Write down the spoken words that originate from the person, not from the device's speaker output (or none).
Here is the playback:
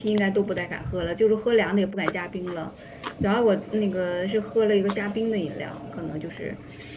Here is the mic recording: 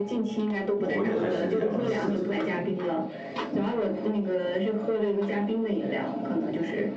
我估计还是凉的刺激了，嗯。